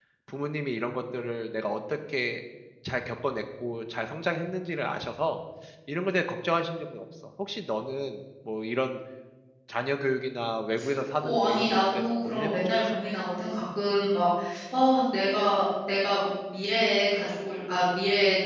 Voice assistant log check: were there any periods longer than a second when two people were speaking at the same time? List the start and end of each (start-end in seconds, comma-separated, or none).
11.2-12.7